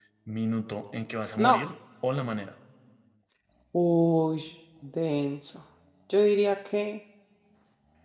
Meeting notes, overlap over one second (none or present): none